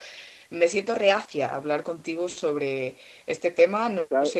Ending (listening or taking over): taking over